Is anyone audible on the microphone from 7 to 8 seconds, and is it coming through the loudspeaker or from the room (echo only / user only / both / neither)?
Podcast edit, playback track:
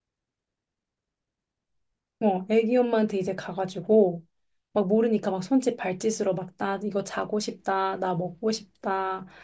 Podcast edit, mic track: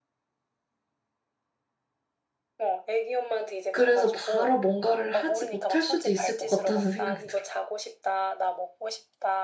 both